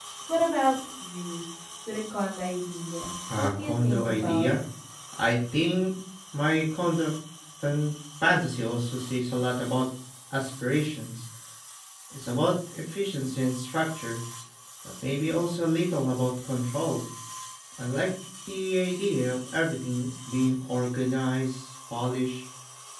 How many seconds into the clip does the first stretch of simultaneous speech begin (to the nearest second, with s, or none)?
3 s